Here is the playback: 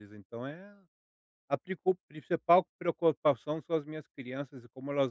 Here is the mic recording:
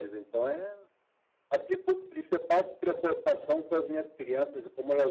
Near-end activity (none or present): none